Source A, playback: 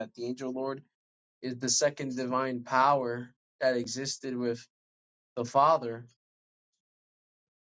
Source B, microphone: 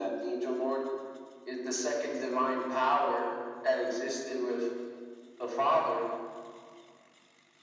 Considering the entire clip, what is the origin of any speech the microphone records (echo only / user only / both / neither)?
echo only